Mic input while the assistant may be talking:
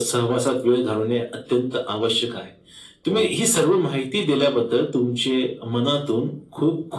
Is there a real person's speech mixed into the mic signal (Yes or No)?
Yes